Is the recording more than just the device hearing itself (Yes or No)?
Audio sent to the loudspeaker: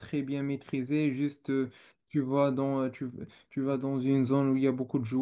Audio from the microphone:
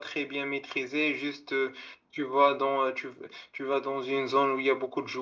No